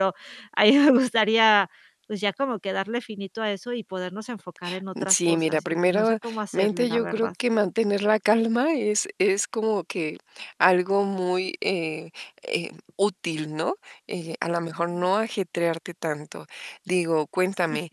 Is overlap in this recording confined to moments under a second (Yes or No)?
No